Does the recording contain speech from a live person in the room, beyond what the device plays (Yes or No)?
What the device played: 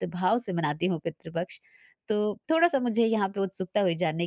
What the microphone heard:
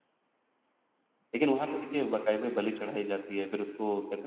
Yes